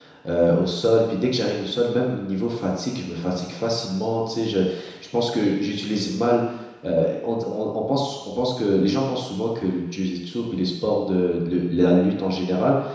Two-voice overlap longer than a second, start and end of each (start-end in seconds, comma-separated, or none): none